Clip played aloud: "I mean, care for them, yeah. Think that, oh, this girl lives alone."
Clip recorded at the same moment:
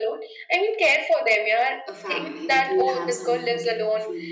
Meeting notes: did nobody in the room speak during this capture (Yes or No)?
No